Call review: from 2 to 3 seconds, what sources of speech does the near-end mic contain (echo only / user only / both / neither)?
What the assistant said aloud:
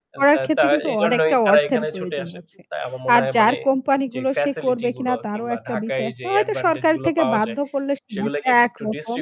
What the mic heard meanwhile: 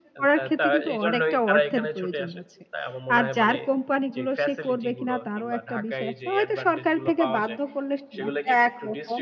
echo only